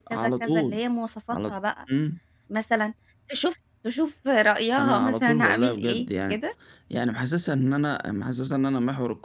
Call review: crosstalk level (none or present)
present